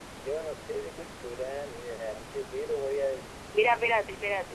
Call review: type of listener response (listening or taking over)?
taking over